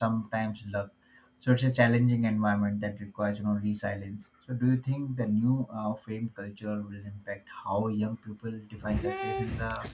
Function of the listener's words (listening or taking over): taking over